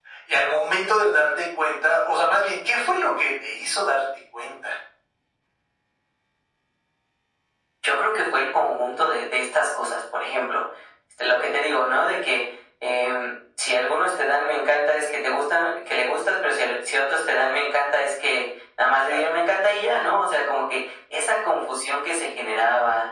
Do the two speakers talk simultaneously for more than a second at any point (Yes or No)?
No